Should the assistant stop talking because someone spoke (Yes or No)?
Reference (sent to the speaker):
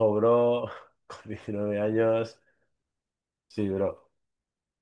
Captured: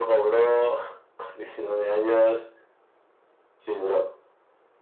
No